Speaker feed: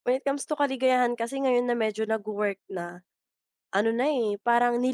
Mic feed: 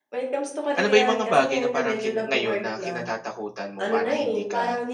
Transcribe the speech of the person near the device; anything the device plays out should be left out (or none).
Ano ba yung mga bagay na parang kin ngayon na kinatatakutan mo para hindi ka